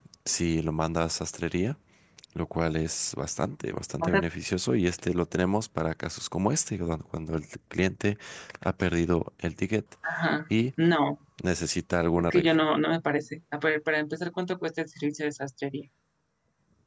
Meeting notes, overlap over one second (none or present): none